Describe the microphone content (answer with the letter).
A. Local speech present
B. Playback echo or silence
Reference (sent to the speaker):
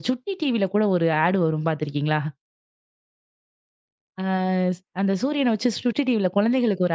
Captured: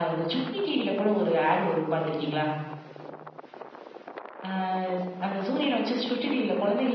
B